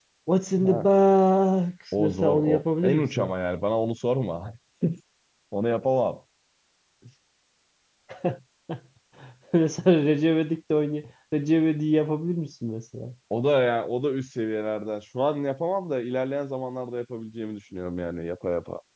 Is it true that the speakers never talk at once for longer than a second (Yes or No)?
No